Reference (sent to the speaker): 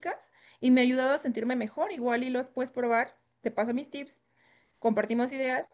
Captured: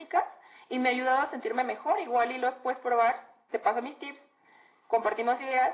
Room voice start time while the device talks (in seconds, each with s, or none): none